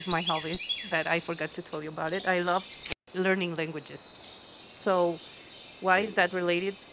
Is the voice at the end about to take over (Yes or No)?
No